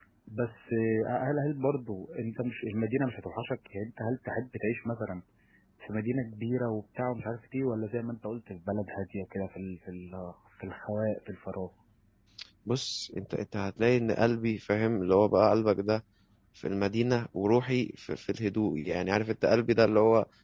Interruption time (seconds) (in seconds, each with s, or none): none